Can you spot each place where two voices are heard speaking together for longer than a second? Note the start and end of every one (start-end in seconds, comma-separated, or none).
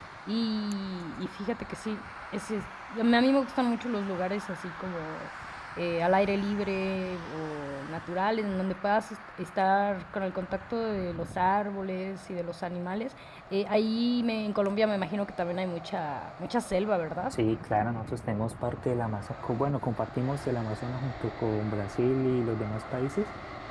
none